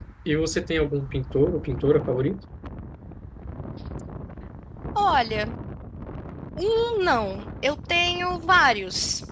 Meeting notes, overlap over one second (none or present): none